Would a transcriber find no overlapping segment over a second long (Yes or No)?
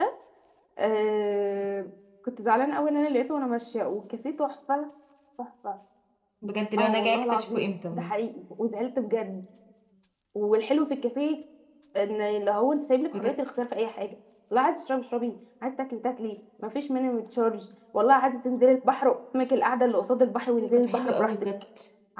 No